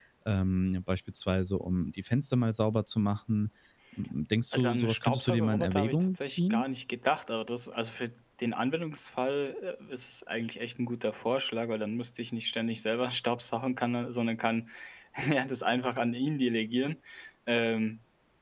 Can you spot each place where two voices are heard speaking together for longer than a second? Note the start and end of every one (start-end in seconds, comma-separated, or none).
4.5-6.6